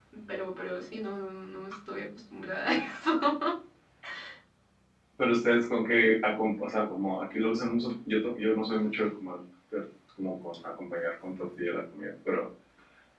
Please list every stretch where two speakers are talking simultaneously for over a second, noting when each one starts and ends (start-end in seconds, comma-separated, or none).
none